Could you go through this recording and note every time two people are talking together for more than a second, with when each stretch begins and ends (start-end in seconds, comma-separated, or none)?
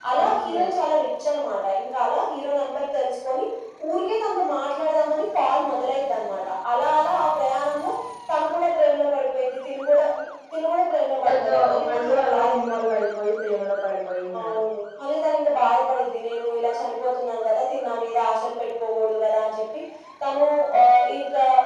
11.2-12.8